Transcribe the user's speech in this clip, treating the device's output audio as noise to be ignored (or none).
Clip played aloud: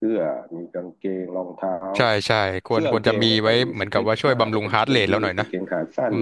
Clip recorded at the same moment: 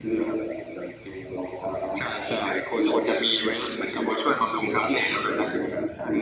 none